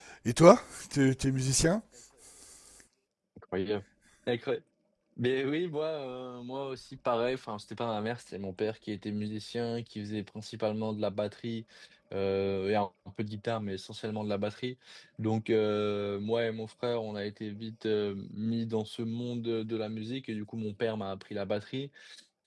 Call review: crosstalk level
none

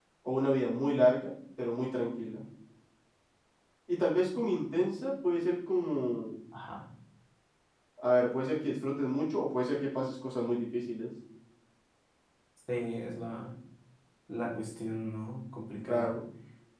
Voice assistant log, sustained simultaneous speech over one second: none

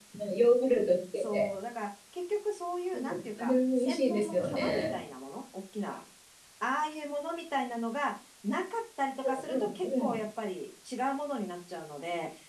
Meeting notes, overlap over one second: present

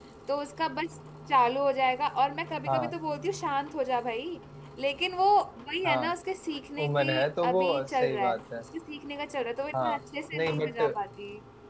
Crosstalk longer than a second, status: present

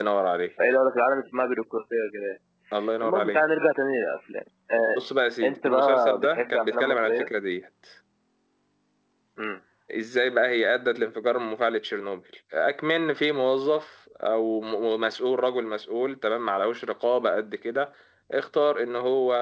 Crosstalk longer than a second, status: present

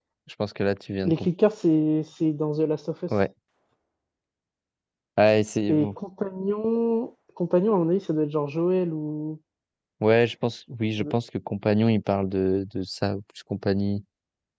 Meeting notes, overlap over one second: none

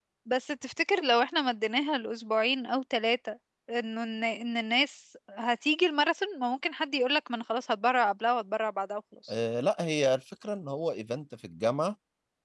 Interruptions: none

